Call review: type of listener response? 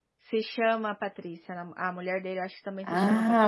taking over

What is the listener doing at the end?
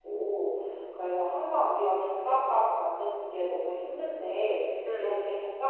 listening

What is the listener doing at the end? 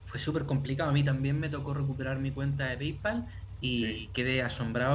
listening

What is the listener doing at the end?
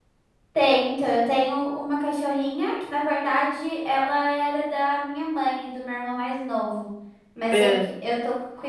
listening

